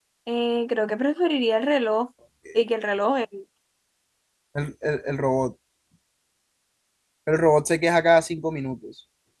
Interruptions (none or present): none